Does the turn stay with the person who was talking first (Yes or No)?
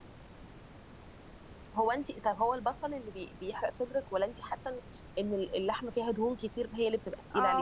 No